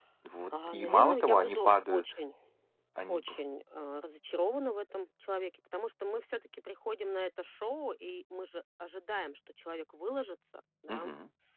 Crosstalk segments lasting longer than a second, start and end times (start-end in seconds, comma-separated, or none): 0.7-2.0